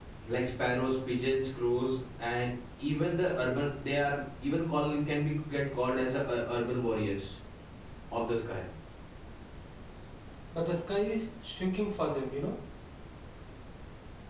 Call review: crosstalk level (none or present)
none